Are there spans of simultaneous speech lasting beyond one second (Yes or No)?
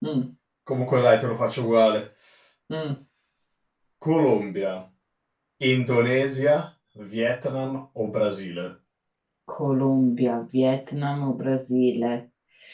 No